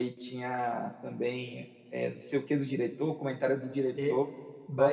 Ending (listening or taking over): taking over